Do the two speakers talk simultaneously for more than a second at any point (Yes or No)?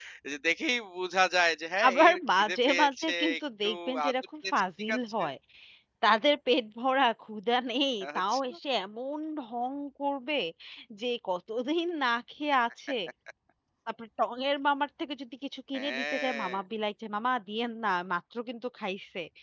Yes